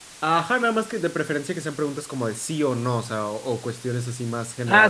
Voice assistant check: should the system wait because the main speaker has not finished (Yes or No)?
No